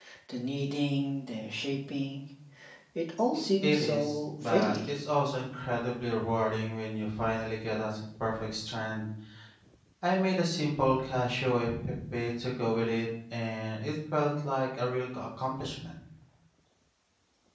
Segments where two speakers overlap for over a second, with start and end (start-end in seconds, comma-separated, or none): 3.6-4.9